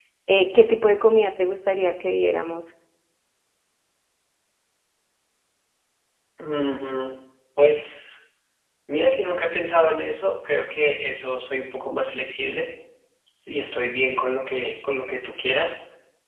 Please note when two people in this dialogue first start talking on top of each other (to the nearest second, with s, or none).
none